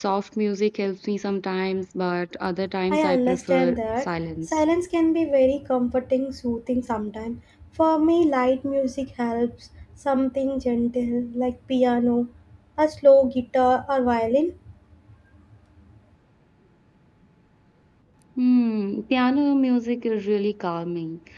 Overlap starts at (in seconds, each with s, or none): 2.9 s